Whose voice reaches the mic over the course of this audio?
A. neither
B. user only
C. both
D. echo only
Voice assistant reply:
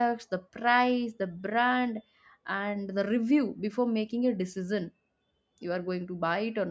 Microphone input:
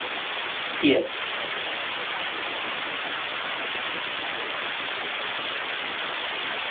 B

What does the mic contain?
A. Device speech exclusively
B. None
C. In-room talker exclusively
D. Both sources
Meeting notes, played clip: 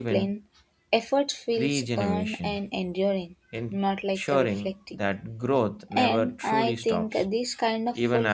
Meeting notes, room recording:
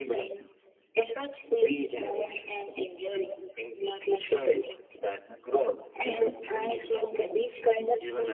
A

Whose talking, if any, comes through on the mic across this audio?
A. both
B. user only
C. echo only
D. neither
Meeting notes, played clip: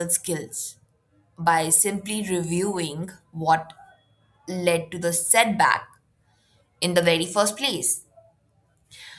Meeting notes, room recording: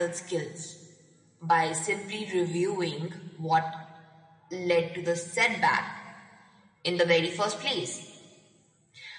C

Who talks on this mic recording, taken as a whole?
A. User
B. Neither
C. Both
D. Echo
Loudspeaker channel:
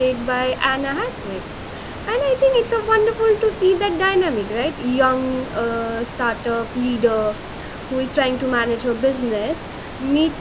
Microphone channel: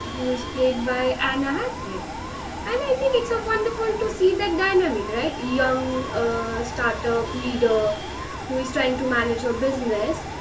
D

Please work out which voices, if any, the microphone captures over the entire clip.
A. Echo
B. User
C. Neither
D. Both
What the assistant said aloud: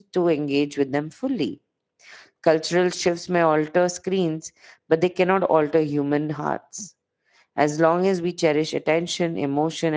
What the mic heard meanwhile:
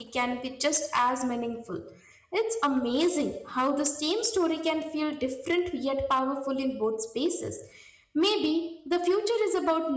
B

